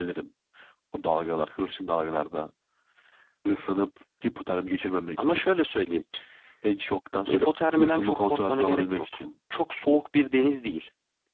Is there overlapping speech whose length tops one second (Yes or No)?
Yes